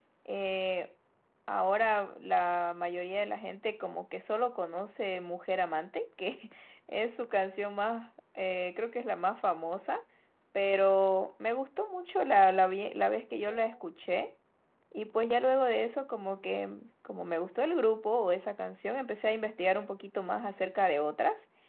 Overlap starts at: none

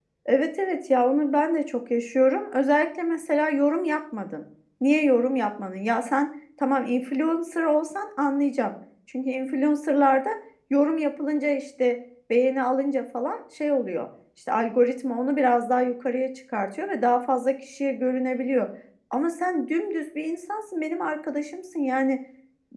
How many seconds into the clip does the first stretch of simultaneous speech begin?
none

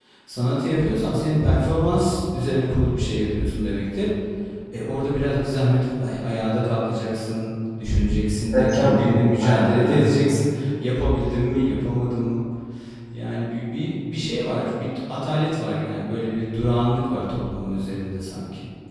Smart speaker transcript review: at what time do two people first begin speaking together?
9 s

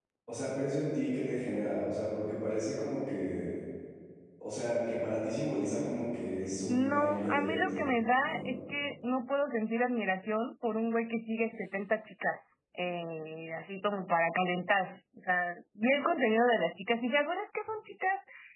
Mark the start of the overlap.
7 s

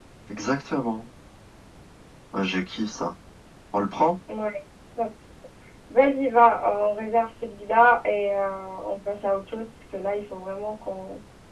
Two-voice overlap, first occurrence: none

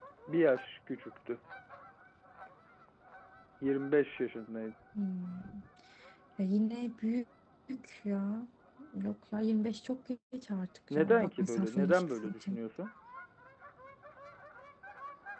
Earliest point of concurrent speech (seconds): 11 s

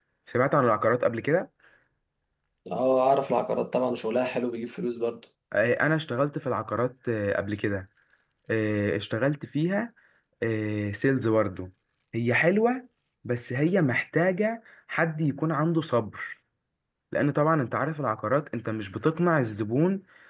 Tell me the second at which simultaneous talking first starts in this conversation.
none

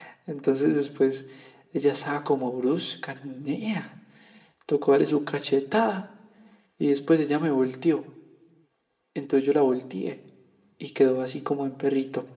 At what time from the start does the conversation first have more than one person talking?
none

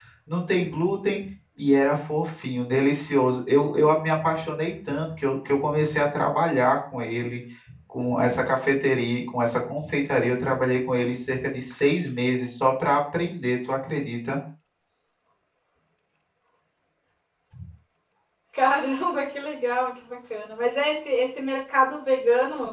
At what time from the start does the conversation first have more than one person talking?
none

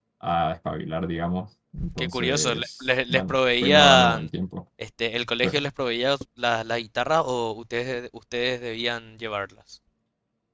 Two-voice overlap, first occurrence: 2 s

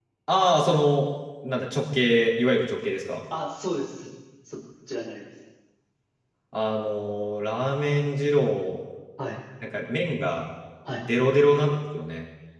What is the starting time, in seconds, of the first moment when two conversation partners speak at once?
none

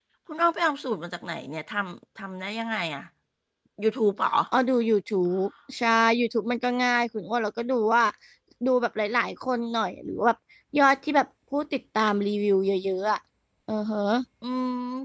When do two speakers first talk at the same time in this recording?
none

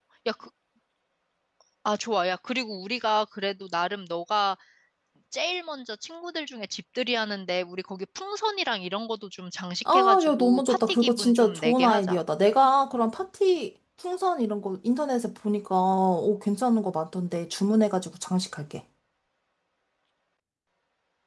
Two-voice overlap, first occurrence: 10 s

